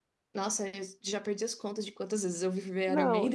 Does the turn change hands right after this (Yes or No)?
Yes